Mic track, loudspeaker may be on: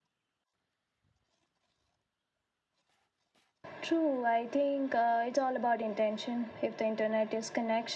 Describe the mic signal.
echo only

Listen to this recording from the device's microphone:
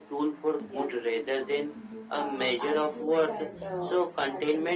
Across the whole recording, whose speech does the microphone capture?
both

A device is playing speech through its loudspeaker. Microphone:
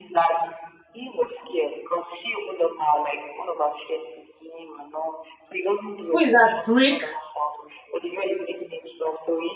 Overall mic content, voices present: both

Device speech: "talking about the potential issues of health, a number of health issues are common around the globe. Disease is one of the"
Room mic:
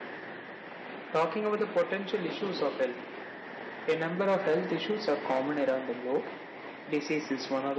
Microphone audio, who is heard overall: echo only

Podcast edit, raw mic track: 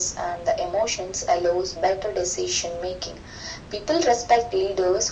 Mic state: echo only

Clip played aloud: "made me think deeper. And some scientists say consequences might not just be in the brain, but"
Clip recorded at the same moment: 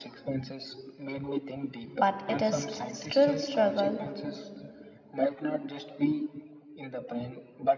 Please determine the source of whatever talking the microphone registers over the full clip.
both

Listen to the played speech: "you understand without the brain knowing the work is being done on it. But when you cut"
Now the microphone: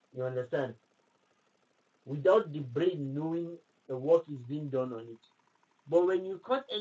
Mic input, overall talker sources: echo only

